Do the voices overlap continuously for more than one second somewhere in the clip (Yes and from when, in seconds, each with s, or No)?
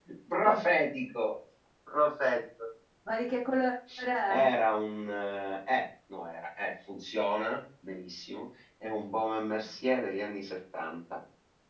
No